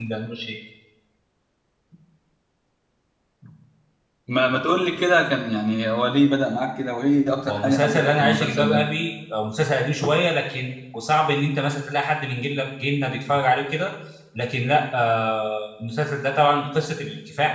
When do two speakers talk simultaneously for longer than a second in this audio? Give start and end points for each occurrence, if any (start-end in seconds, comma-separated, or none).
7.4-8.9